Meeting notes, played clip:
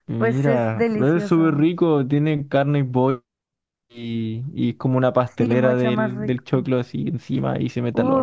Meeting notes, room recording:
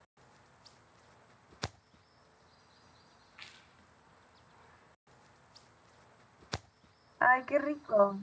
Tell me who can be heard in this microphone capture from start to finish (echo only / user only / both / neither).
user only